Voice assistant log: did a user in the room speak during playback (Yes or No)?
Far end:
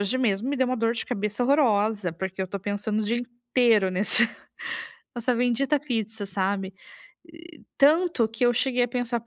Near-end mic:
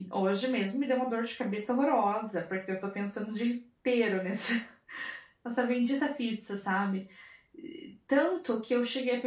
No